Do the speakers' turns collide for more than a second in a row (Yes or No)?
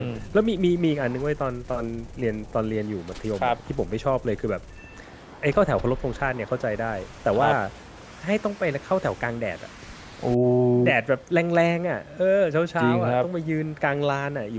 No